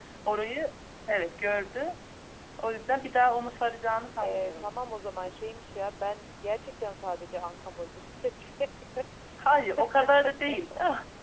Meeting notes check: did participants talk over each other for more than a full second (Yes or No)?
No